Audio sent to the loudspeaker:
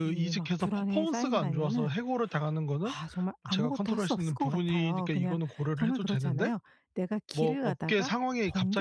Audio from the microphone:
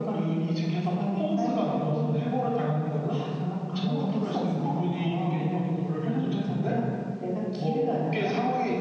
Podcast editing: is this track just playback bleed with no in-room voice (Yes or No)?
No